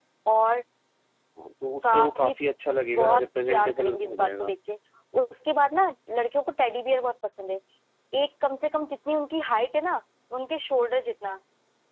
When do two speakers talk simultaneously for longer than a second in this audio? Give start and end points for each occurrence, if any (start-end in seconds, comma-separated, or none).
3.0-4.5